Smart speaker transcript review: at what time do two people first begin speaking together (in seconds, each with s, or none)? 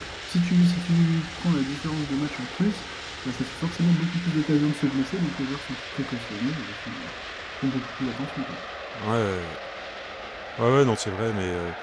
none